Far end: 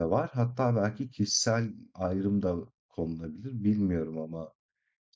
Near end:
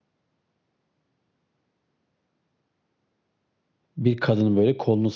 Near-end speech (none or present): present